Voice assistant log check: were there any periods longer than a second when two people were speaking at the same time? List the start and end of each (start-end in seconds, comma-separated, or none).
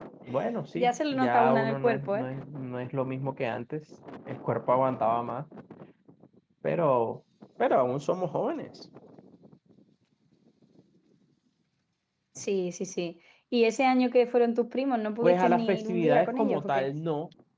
0.8-2.3, 15.2-16.9